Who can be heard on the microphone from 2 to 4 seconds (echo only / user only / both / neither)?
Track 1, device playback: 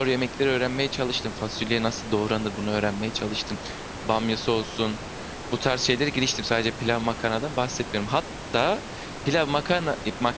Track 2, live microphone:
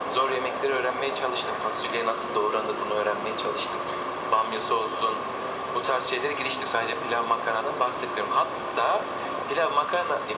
echo only